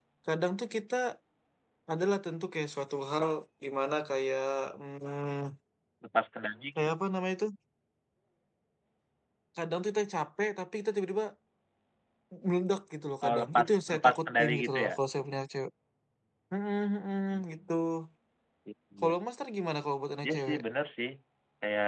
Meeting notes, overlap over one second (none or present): present